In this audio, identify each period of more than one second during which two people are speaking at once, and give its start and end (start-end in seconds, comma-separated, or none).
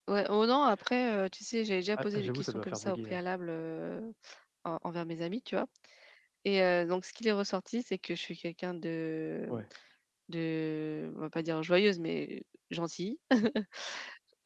2.0-3.2